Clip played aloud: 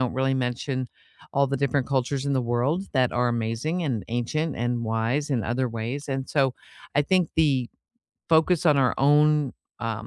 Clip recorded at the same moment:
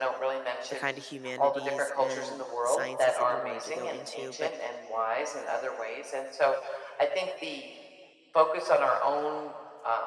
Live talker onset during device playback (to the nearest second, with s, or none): 1 s